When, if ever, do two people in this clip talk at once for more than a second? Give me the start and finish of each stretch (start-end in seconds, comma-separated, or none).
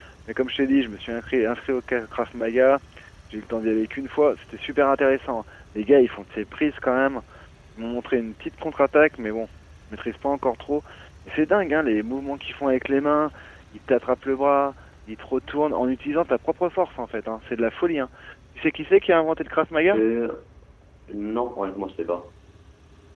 none